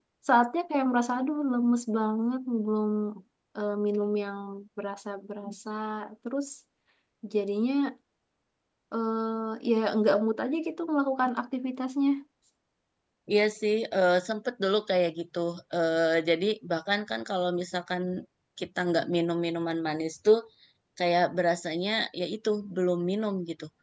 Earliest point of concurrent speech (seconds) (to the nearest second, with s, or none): none